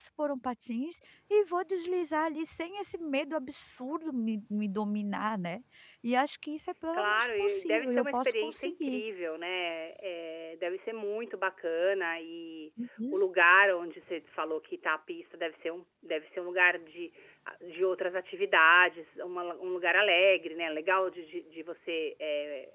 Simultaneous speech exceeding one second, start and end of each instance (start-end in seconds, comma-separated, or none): 6.9-9.0